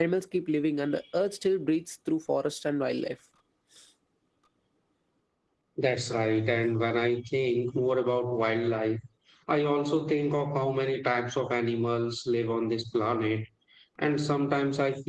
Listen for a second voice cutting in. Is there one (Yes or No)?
No